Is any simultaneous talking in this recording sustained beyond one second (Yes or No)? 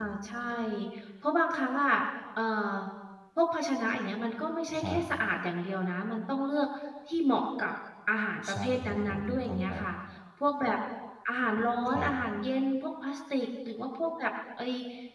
Yes